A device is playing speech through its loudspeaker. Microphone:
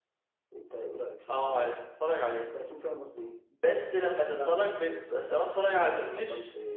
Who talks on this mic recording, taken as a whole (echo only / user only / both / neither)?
both